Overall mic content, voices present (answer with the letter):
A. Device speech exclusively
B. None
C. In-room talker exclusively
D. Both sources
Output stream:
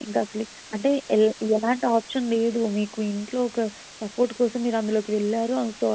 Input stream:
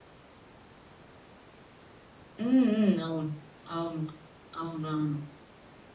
C